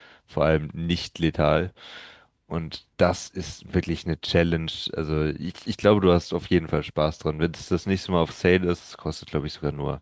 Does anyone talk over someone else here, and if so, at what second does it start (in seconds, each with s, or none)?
none